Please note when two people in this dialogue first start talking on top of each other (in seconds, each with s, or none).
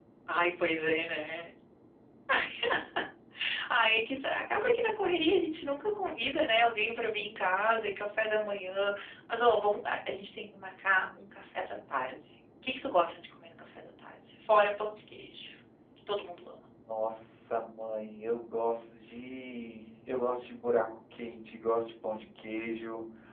none